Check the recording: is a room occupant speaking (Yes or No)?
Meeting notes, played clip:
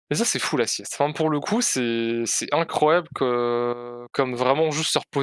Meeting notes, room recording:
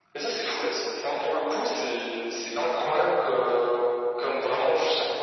No